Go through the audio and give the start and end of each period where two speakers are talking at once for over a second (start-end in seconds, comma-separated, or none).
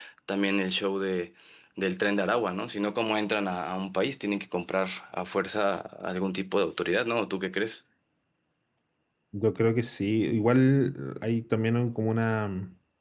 none